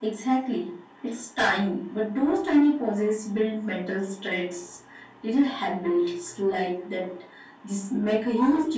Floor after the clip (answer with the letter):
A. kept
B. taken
B